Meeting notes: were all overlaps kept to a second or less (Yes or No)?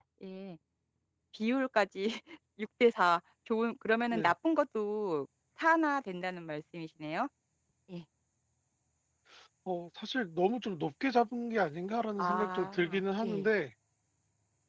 No